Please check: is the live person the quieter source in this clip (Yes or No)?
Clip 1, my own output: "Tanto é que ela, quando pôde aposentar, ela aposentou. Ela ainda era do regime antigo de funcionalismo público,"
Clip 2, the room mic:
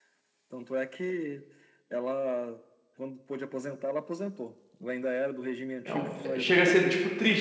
No